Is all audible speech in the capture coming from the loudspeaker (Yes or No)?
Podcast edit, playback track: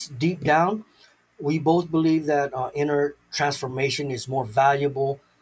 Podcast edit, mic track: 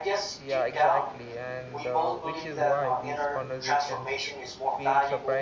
No